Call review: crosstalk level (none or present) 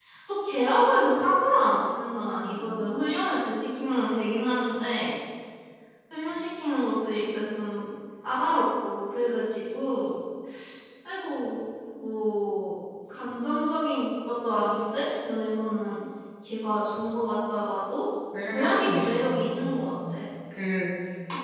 present